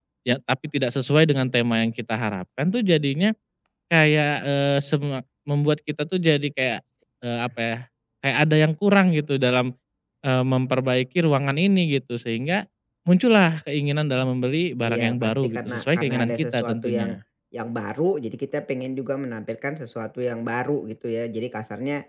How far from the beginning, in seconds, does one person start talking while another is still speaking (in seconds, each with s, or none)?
14.8 s